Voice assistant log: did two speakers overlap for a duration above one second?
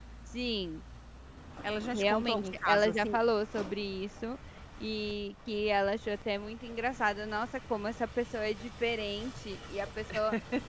Yes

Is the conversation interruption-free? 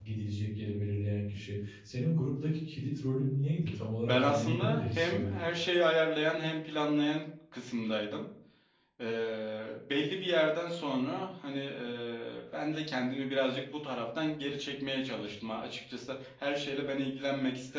No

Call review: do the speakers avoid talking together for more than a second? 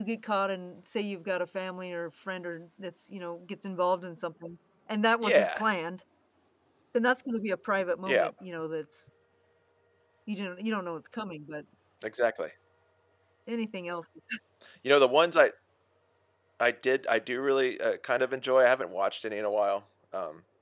Yes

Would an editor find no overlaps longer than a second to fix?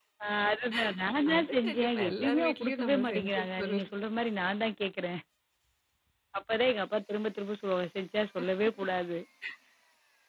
No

